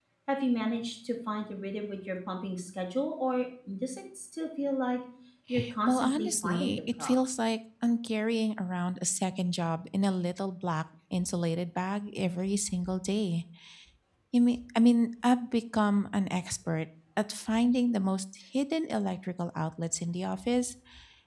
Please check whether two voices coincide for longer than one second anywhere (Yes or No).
Yes